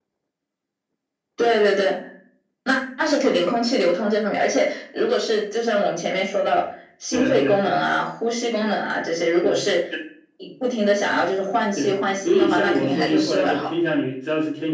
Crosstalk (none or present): present